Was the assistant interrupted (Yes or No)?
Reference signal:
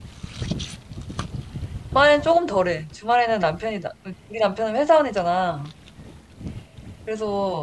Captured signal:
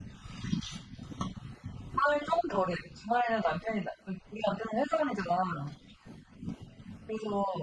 No